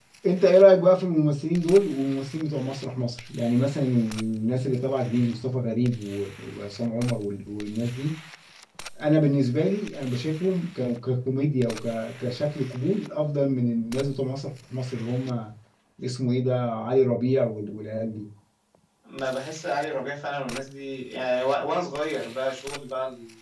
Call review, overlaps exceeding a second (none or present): none